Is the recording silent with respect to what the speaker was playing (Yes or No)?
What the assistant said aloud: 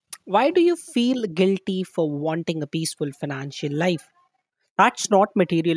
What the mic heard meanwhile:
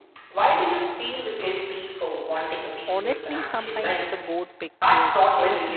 No